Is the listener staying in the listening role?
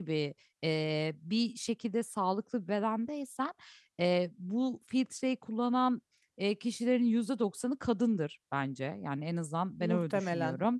Yes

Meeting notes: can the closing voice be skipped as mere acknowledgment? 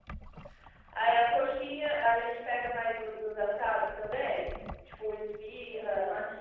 No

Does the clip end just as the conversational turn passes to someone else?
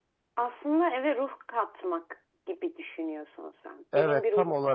Yes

